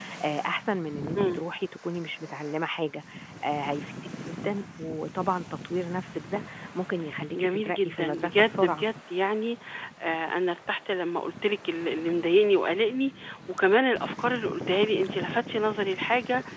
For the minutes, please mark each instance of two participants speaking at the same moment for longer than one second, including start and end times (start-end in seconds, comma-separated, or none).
7.4-8.9